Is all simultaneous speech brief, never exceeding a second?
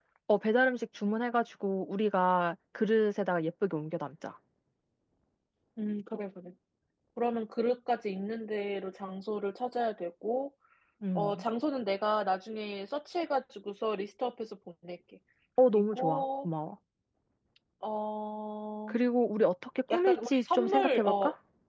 No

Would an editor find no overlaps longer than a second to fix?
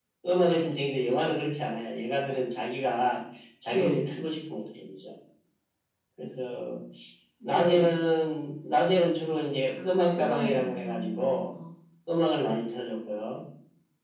No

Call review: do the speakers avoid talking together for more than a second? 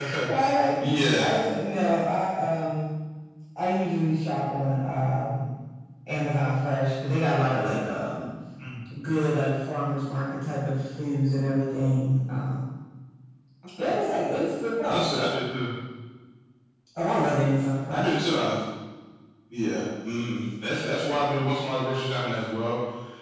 Yes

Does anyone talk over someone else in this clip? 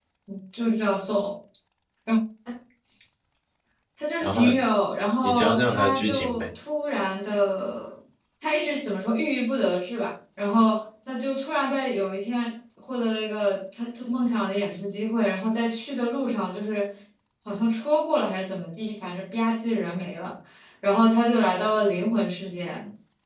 Yes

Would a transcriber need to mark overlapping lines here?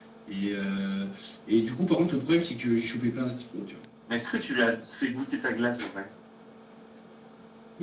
No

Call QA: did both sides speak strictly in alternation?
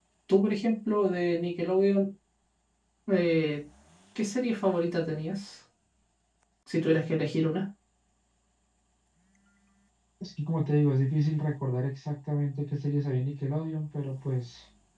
Yes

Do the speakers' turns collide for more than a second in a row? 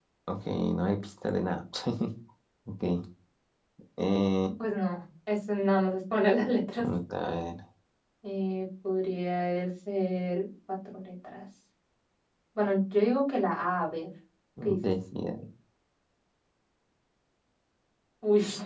No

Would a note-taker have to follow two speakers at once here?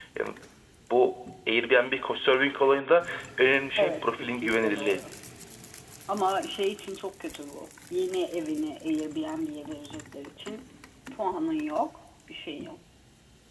Yes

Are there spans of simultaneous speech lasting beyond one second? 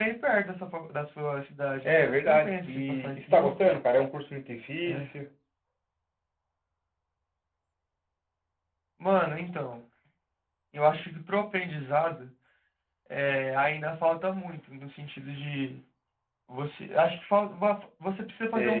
Yes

